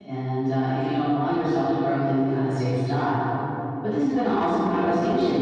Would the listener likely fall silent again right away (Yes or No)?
Yes